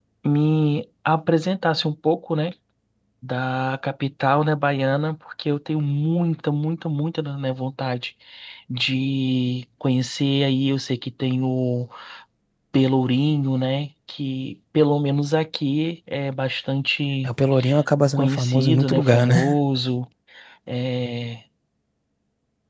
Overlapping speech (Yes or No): Yes